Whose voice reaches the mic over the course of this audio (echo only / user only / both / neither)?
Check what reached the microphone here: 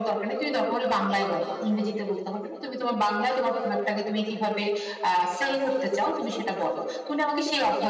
echo only